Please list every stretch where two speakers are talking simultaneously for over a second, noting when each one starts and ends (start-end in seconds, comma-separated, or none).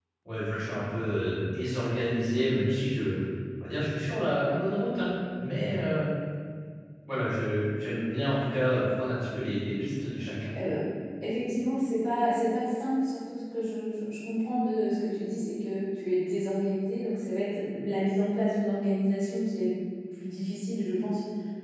none